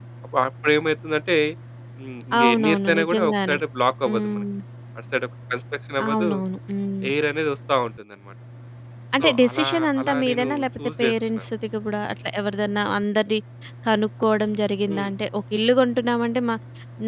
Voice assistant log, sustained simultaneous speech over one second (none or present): present